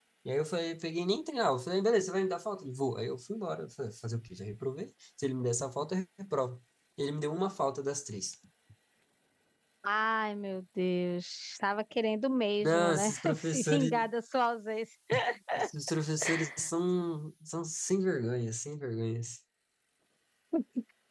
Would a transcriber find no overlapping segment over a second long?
No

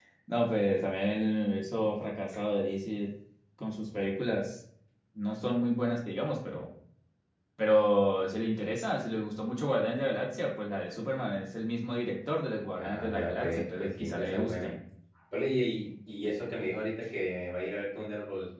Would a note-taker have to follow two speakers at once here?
Yes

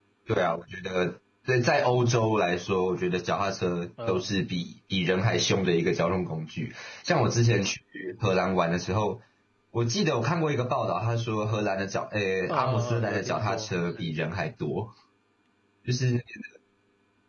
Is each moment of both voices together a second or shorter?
No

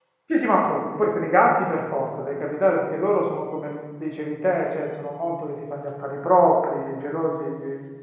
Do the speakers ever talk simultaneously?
No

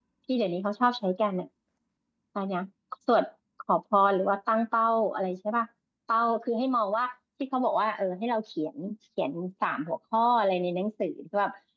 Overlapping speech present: No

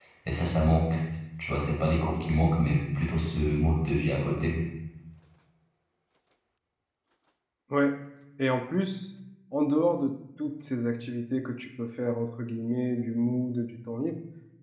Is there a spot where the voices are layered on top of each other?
No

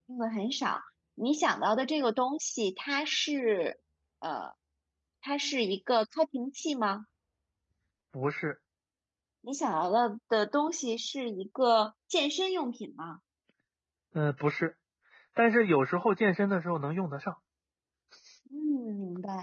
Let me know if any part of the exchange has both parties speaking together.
No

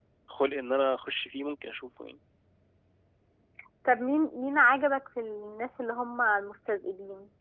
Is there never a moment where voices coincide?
Yes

